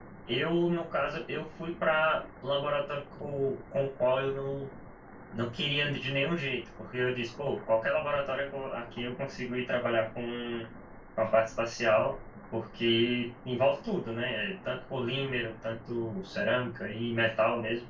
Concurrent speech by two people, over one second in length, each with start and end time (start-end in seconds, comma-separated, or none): none